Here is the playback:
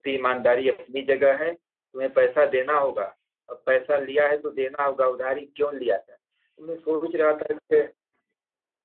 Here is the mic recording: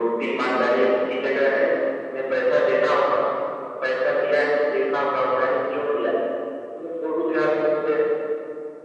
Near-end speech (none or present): none